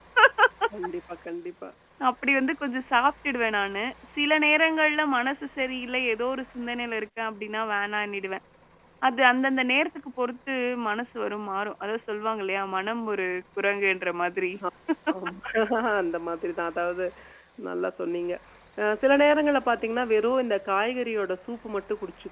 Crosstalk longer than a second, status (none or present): none